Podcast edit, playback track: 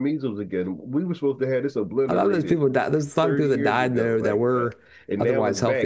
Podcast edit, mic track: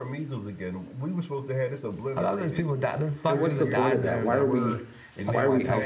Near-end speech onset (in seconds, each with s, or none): 3.3 s